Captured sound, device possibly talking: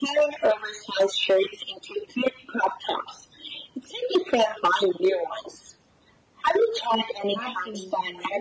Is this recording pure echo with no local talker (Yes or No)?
No